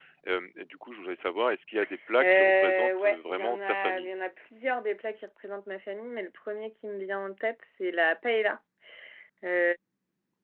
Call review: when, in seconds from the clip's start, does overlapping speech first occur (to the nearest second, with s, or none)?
2 s